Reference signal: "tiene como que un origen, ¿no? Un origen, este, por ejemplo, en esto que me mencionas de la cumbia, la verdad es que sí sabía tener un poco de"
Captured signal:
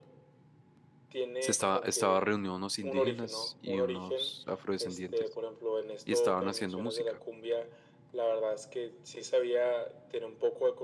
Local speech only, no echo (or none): se estaba, estaba reunido unos indígenas y unos afrodescendientes y estaban haciendo música.